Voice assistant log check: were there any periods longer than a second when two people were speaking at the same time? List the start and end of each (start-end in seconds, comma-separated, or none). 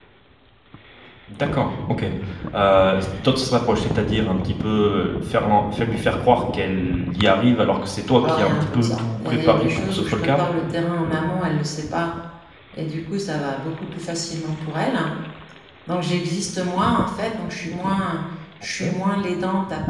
8.2-10.4